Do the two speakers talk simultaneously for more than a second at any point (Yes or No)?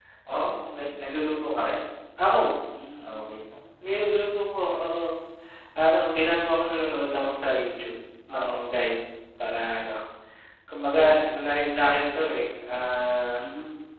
No